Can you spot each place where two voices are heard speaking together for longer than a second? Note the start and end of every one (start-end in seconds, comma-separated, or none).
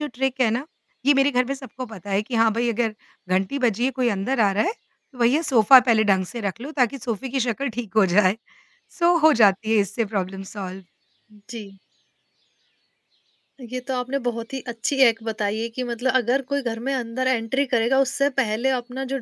none